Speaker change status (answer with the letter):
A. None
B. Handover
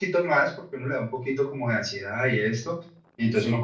A